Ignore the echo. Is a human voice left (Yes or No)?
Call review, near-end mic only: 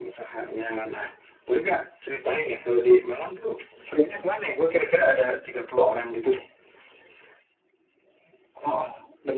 No